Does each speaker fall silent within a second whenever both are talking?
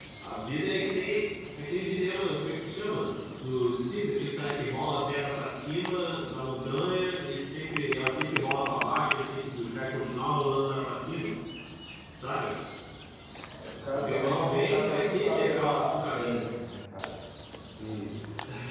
No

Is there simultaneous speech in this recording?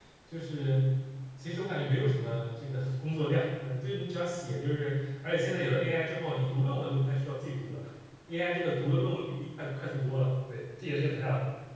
No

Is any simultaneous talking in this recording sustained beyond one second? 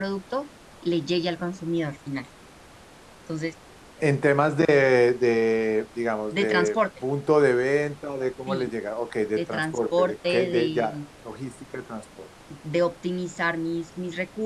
Yes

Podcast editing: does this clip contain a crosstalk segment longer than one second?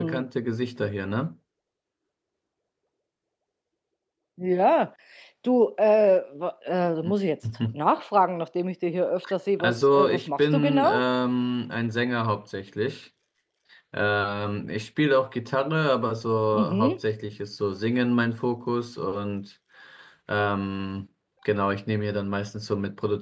Yes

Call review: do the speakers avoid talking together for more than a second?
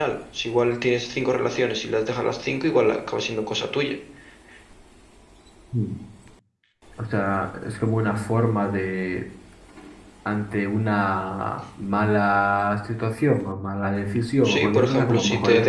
No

